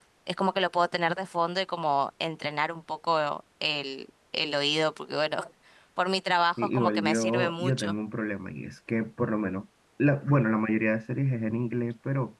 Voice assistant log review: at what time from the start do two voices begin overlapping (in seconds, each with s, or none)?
6.6 s